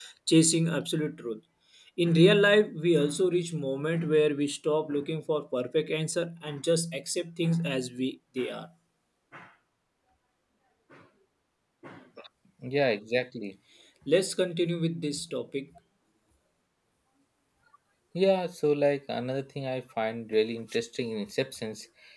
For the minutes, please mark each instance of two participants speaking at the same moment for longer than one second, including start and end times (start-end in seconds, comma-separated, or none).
none